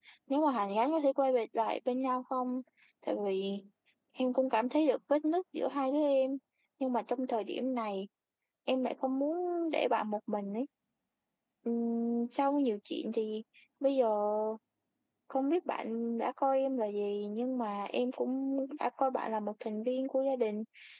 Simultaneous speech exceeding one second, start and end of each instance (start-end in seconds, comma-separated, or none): none